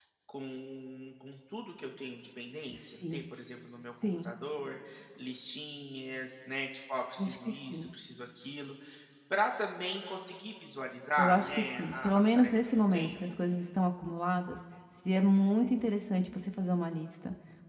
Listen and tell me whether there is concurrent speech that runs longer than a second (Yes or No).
Yes